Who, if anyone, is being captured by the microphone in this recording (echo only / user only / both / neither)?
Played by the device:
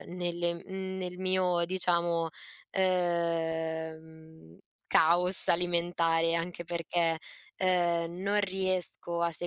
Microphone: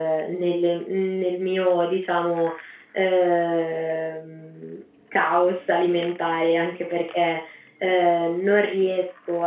echo only